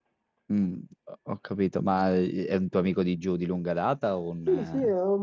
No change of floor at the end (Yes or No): No